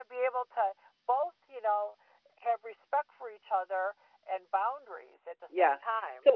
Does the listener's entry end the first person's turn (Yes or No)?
Yes